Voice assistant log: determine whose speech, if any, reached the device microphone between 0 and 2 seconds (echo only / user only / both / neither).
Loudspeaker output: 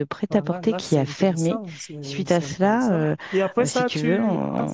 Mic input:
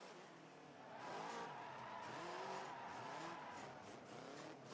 neither